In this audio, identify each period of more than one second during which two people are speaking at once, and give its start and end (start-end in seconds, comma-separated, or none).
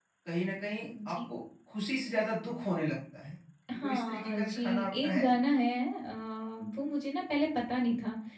3.7-5.3